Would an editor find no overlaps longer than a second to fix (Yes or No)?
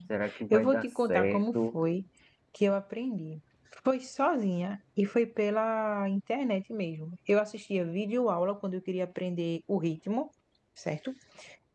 No